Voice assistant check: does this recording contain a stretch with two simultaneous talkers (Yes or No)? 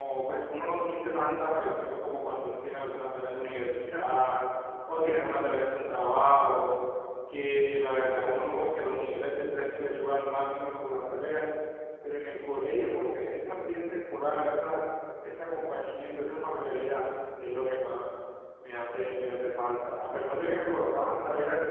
No